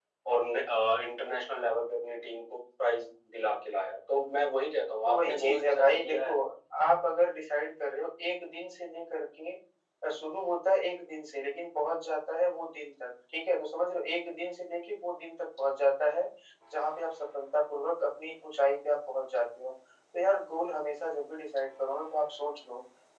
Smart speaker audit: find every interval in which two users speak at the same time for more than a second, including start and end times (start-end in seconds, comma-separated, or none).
5.0-6.3